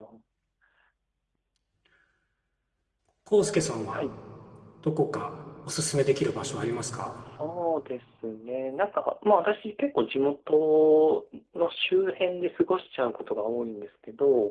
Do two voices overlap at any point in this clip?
No

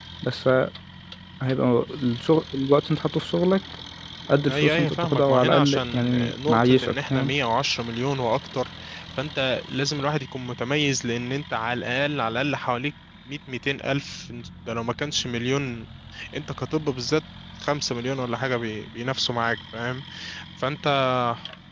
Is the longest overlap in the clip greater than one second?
Yes, from 4.5 s

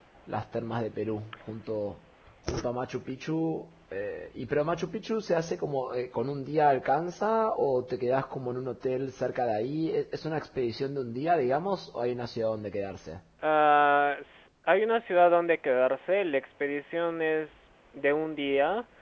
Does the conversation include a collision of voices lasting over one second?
No

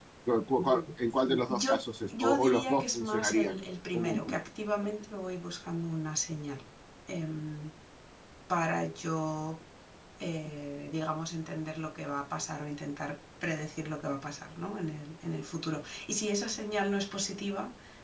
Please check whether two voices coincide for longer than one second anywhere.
Yes, from 1.5 s

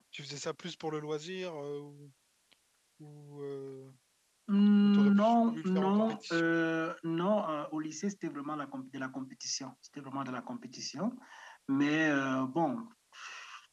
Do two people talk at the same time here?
Yes, from 4.8 s

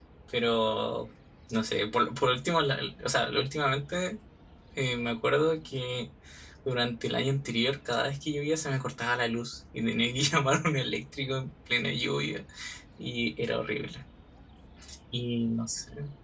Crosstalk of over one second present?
No

